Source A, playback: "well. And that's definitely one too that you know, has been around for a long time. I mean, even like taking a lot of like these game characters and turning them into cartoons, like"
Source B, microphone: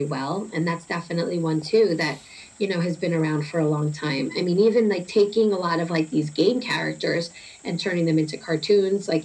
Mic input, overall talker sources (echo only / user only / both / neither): echo only